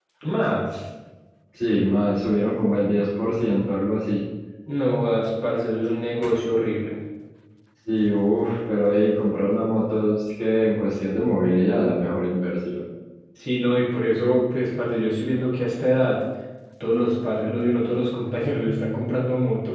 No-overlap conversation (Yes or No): Yes